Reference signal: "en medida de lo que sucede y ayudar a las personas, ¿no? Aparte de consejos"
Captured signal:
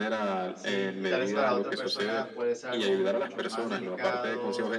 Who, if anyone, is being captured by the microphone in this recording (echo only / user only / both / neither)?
both